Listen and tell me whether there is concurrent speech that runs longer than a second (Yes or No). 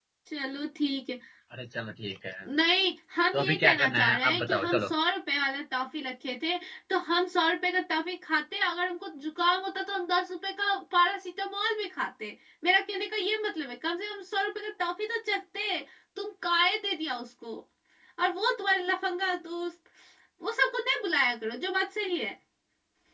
Yes